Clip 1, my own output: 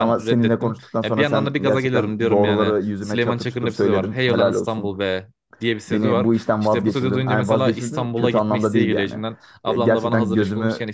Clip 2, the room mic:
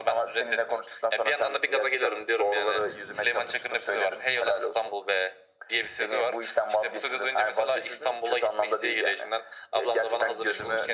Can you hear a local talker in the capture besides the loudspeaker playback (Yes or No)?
No